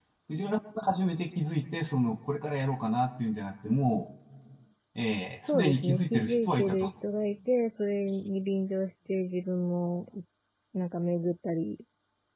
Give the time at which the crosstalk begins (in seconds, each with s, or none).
5.5 s